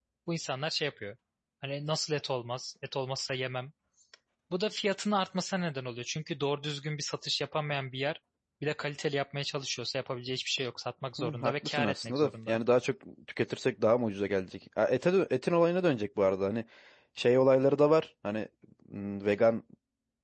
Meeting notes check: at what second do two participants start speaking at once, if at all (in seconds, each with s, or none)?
11.2 s